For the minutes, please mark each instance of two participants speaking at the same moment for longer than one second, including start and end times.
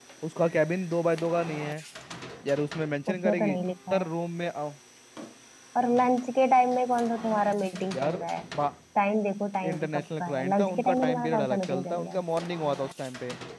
9.7-12.2

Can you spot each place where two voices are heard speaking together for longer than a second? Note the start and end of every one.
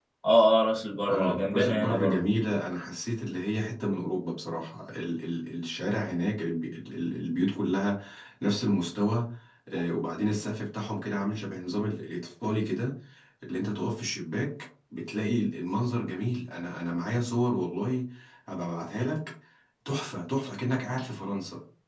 1.1-2.3

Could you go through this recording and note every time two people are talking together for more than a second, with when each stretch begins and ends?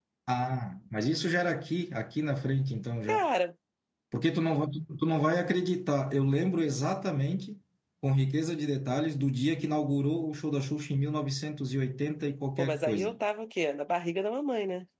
none

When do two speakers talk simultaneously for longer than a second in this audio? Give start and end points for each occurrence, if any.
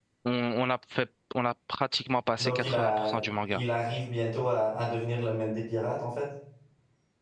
2.4-3.6

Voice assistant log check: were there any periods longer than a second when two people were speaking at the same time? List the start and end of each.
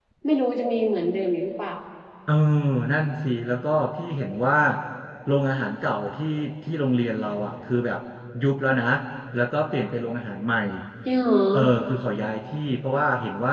none

